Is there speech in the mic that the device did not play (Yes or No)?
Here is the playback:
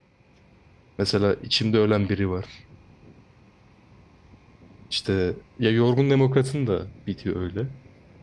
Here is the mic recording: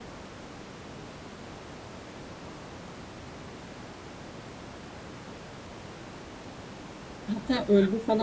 Yes